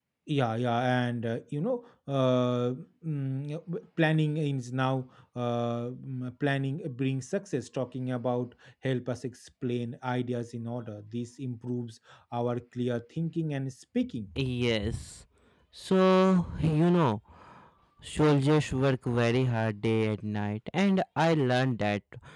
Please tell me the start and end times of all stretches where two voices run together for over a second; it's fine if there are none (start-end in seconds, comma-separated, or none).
none